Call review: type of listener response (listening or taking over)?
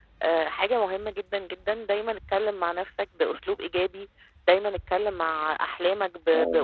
listening